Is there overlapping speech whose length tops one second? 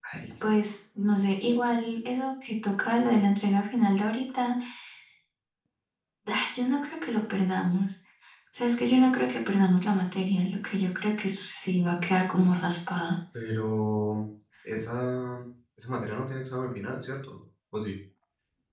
No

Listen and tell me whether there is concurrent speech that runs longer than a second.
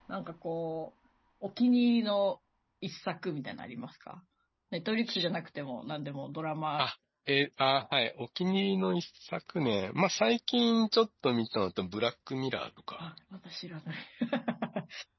No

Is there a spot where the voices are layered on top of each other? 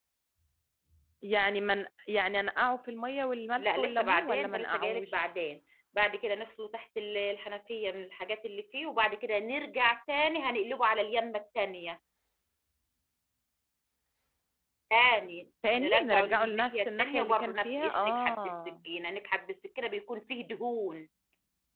Yes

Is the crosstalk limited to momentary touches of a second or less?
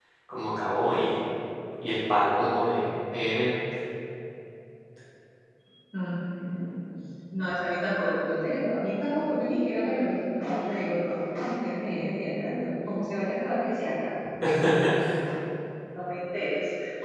Yes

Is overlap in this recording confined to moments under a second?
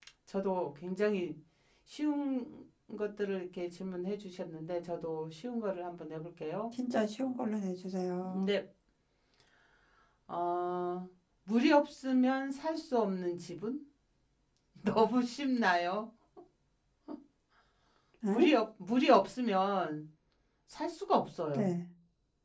Yes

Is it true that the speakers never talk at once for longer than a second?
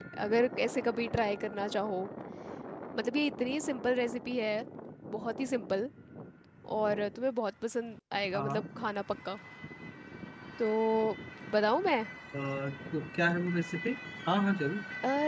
Yes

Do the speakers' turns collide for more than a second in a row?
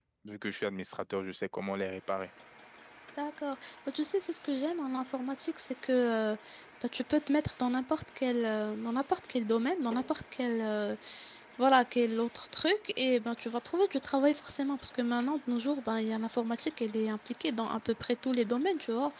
No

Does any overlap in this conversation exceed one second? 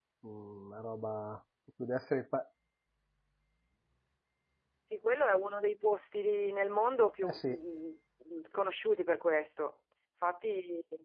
No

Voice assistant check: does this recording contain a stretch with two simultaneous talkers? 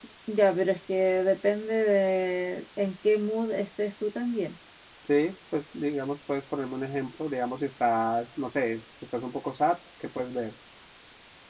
No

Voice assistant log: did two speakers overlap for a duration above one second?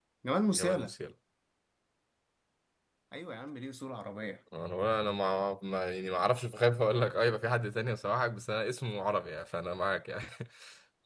No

